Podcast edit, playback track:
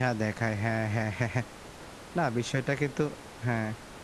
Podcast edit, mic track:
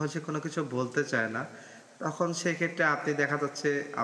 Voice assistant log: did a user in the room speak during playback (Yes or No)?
Yes